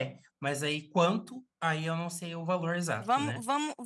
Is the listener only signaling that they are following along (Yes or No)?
No